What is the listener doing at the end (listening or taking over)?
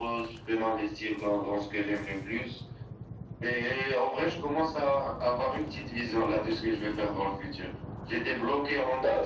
listening